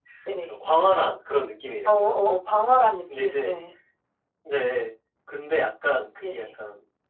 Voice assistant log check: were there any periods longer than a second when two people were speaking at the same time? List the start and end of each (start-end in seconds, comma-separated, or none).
none